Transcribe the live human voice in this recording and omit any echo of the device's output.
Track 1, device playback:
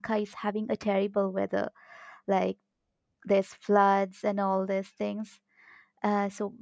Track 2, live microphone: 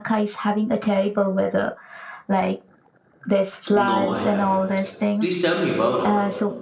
No, I haven't. Please tell me about it.

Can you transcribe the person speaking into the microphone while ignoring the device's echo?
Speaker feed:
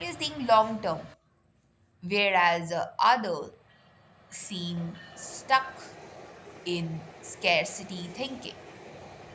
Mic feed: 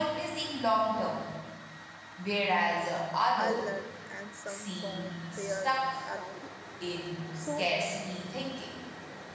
unlearn and some from fear around it so

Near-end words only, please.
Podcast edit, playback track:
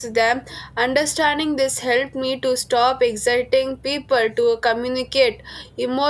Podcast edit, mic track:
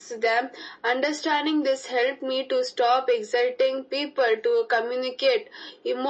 none

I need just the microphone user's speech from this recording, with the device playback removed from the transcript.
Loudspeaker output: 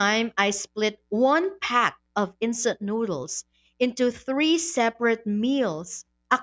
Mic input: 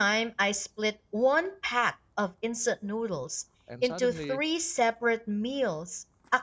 and suddenly

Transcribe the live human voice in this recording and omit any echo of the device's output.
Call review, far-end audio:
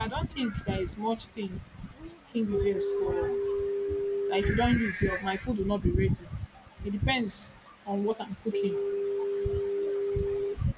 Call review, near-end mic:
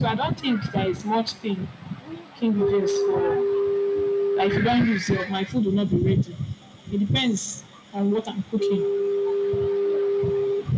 none

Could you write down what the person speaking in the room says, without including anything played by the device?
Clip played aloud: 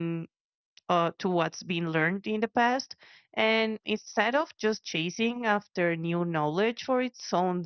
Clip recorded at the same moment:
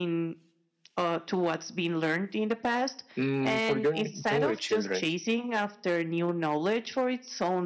Mm, for young, younger children,

